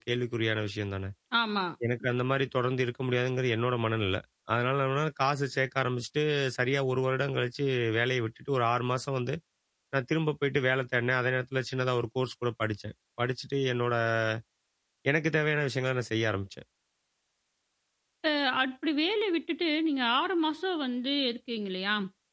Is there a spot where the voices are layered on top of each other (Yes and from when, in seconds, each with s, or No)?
No